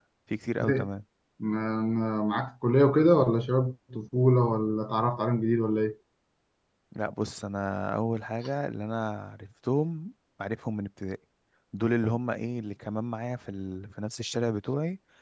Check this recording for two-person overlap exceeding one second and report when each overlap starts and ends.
none

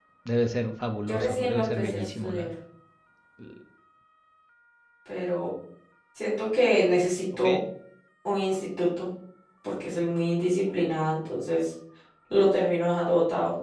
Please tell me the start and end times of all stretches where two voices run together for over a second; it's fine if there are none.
1.0-2.5

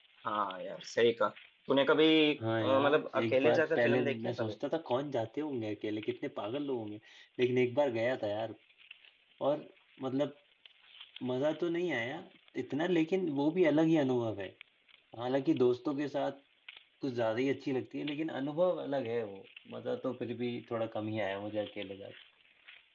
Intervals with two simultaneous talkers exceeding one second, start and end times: 2.6-4.5

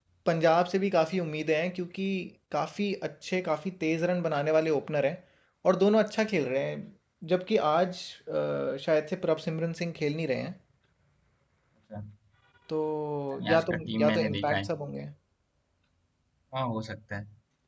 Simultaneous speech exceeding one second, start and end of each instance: 13.5-14.7

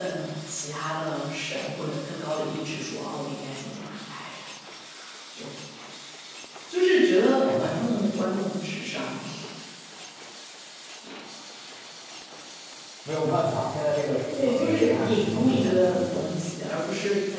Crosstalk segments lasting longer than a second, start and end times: 14.3-16.2

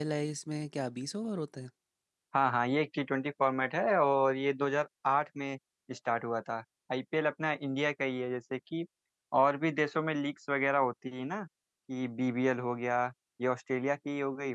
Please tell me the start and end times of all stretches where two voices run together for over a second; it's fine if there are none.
none

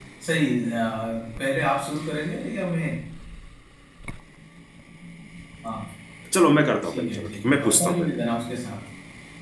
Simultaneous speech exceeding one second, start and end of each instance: 6.8-8.1

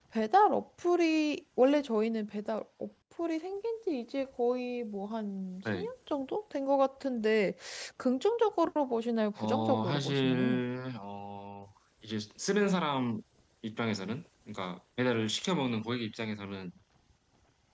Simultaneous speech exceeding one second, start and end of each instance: 9.4-10.6

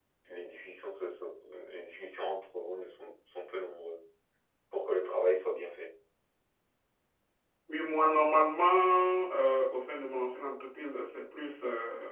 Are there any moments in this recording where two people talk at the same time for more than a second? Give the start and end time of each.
none

